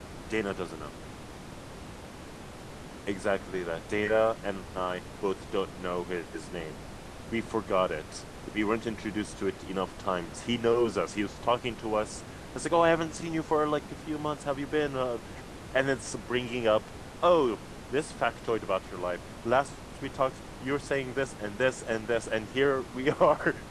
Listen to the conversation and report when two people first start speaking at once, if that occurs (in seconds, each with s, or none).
none